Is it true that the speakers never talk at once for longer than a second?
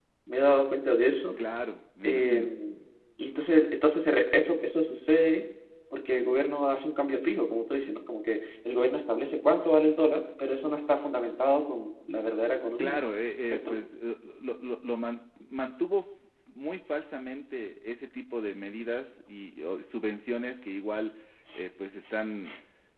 Yes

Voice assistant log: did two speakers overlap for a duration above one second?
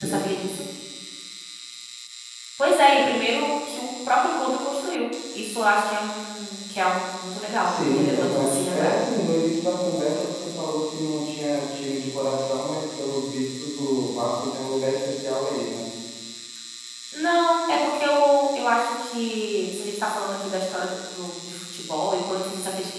Yes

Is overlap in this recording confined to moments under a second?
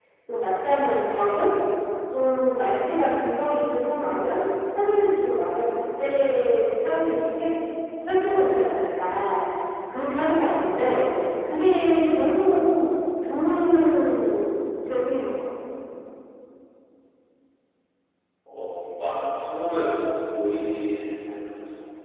Yes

